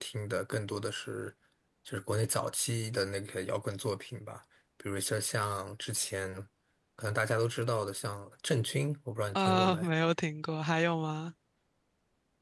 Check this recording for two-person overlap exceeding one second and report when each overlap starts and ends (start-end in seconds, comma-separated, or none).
none